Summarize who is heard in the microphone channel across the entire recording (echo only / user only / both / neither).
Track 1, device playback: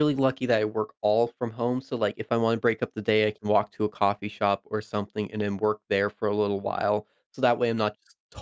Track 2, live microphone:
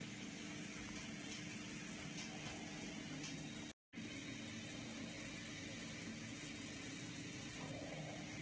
neither